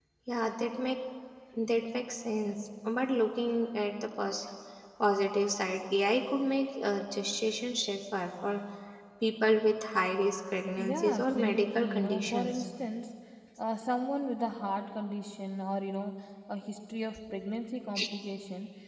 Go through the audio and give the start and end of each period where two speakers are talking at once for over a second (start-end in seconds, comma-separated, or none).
10.8-12.6